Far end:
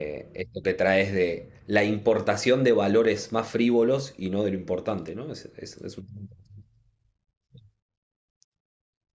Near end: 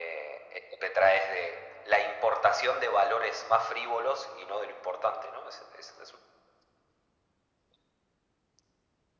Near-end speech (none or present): none